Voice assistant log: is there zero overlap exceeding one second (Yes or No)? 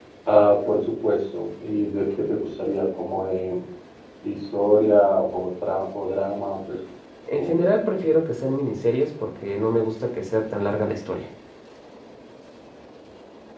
Yes